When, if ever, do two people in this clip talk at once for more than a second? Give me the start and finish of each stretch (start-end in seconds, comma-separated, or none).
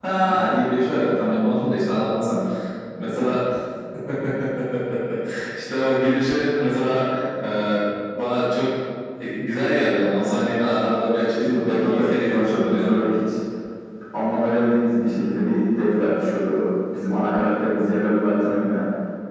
11.4-13.0